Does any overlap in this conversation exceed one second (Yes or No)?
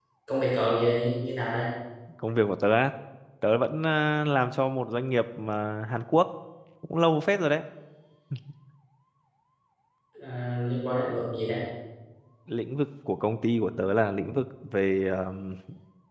No